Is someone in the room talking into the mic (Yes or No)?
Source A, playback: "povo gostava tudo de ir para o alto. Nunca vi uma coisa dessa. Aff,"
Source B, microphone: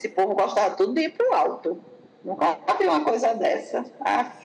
No